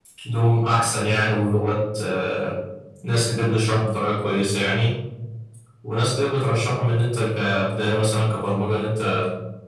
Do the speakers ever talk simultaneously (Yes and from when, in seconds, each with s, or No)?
No